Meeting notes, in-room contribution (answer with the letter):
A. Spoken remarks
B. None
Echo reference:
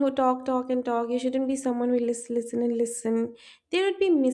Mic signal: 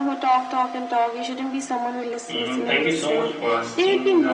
A